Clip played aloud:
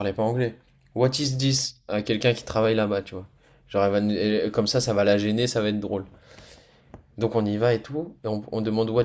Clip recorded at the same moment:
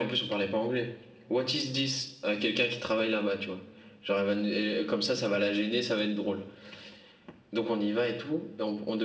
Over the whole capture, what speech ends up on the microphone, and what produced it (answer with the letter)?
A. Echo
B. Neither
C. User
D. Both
A